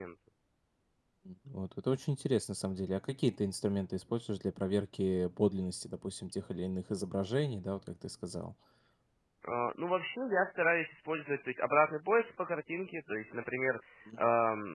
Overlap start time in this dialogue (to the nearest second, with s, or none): none